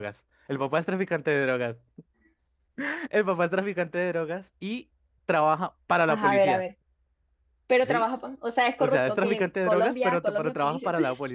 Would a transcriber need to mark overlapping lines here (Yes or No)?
Yes